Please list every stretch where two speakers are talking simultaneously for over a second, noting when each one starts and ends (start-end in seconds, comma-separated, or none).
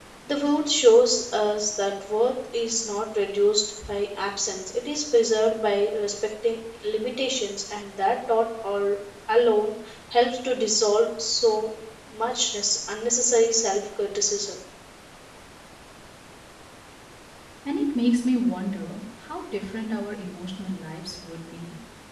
none